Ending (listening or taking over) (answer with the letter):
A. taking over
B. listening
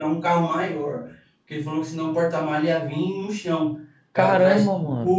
B